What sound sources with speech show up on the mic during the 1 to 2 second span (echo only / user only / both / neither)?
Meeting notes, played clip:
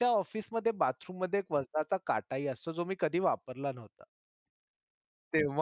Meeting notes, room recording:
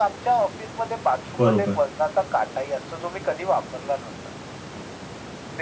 both